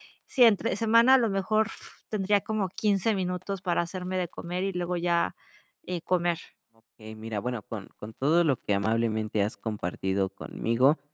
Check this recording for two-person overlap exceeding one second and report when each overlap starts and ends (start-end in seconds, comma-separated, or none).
none